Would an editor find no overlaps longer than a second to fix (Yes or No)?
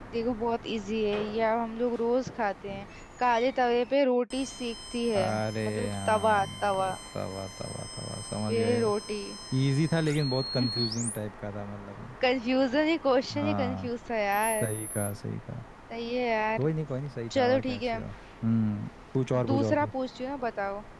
No